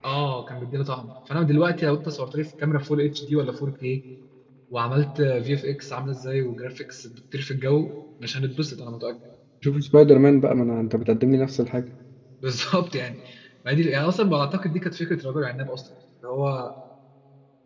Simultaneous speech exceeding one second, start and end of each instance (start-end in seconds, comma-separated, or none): none